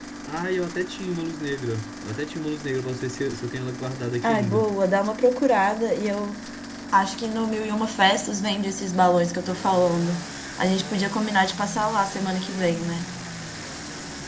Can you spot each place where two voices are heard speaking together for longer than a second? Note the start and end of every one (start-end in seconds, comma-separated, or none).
none